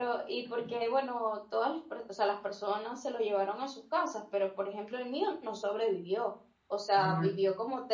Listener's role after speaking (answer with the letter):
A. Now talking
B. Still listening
B